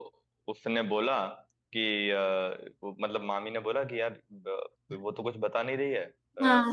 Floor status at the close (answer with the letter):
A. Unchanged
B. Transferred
A